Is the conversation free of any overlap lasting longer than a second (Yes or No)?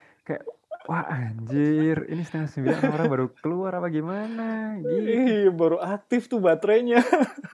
Yes